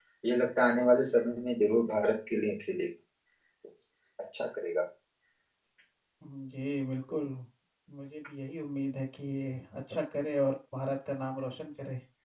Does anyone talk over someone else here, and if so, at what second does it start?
none

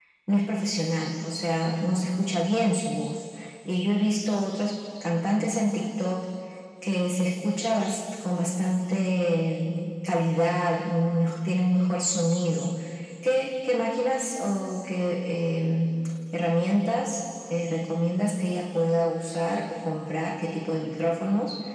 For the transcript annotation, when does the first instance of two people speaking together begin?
none

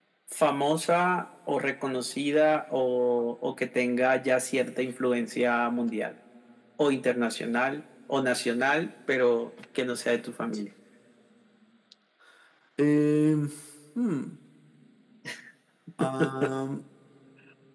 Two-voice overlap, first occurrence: none

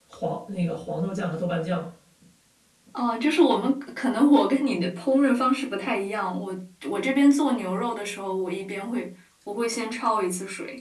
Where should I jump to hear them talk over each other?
none

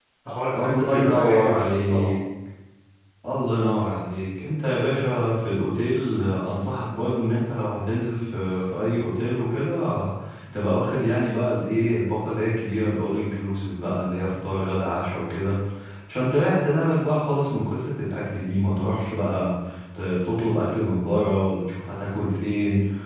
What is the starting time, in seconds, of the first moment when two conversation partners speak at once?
1 s

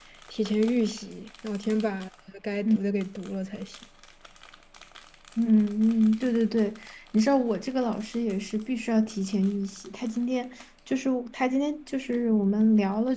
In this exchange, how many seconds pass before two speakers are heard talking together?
none

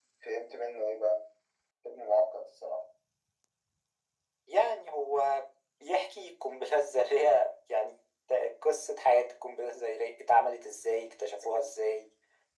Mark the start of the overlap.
none

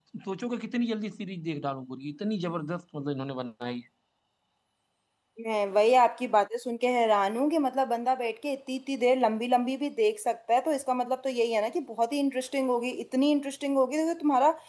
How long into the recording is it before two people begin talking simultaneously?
none

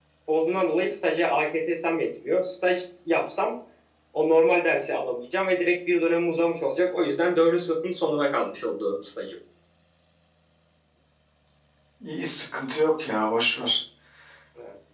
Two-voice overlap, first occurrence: none

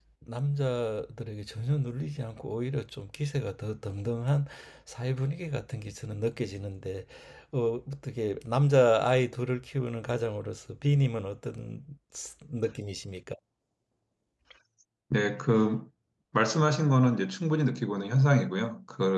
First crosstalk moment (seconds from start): none

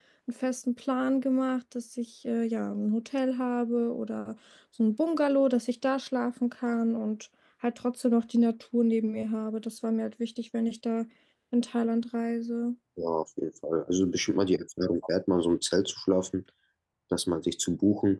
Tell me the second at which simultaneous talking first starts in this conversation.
none

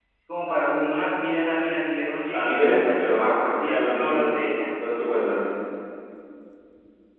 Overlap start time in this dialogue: 2 s

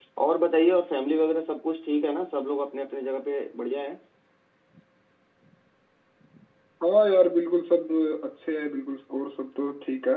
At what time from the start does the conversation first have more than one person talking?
none

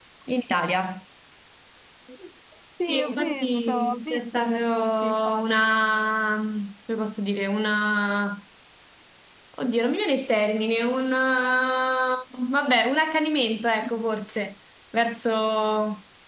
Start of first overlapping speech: 3 s

